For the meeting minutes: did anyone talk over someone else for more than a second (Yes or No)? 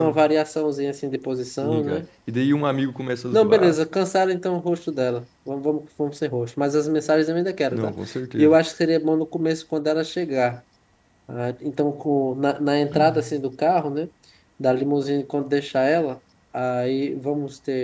No